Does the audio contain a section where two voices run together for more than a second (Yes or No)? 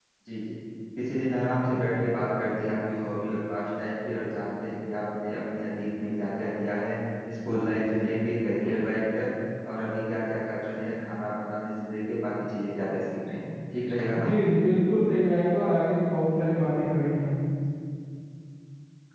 No